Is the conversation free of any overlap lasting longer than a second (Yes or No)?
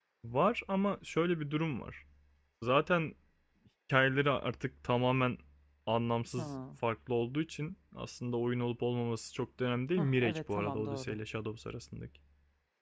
No